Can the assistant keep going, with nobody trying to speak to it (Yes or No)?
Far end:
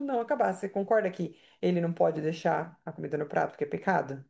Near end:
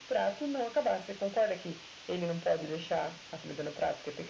Yes